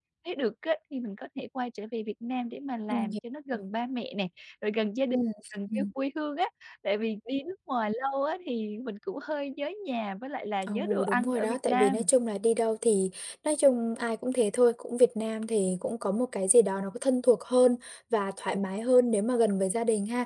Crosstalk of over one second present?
Yes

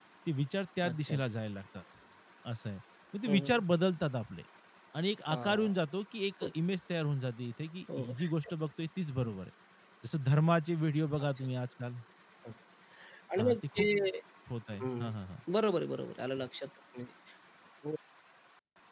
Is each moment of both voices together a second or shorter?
Yes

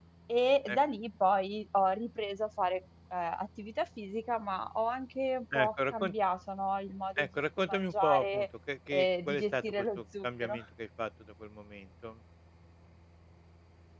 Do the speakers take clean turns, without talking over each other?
No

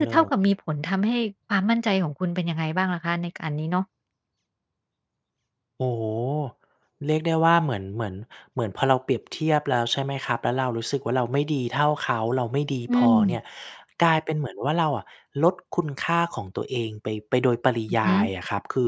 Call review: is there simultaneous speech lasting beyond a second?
No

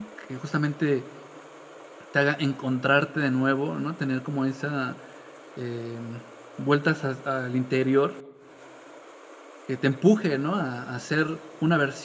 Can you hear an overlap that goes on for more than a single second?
No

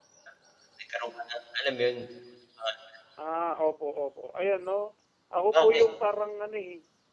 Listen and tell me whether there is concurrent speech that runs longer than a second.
No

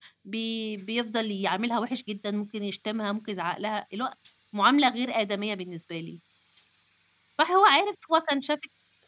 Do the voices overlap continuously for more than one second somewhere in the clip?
No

